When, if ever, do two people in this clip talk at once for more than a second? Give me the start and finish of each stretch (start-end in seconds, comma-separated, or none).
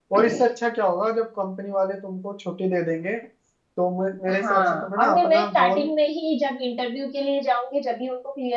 4.4-5.9